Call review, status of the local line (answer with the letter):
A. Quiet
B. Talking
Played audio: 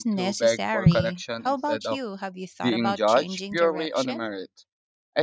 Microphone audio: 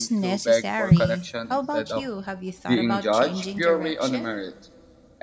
A